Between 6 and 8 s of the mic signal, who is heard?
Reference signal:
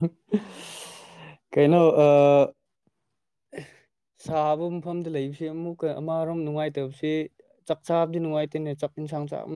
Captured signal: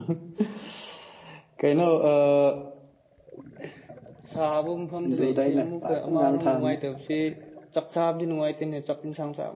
both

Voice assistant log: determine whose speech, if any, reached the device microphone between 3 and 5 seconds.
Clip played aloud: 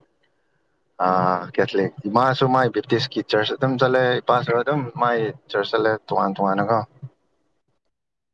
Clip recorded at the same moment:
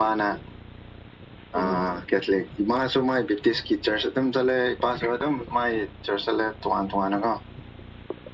echo only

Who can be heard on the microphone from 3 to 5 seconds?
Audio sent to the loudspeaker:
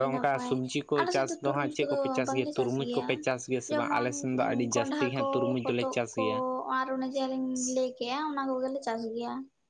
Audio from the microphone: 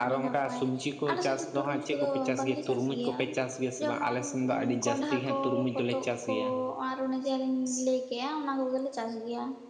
echo only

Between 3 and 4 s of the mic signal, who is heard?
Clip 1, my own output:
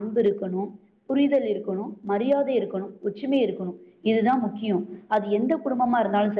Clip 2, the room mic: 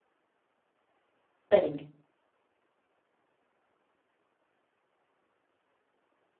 neither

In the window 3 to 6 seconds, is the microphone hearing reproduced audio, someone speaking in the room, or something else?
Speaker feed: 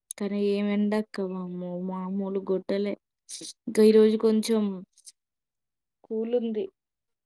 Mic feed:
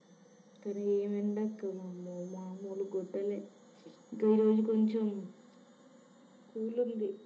echo only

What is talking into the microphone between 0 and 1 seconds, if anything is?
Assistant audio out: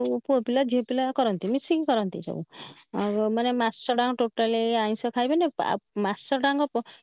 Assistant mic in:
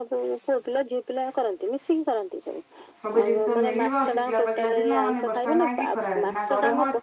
echo only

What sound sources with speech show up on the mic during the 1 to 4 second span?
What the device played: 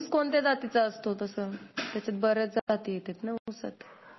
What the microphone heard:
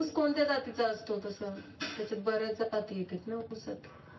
echo only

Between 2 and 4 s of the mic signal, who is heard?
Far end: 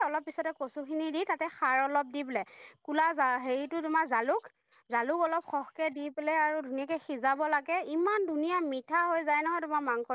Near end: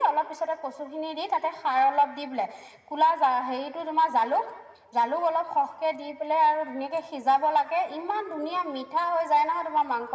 echo only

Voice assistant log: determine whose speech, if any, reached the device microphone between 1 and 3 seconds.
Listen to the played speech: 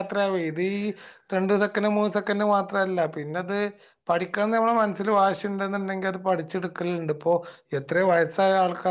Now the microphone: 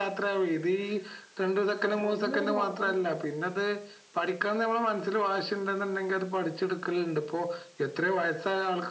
both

